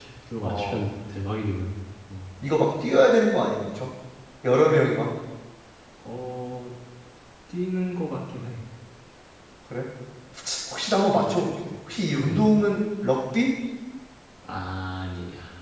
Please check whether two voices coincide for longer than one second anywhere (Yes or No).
No